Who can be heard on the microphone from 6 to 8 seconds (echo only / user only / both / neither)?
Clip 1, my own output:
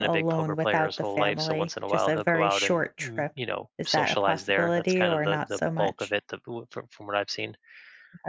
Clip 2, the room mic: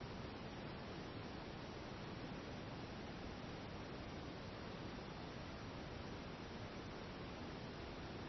neither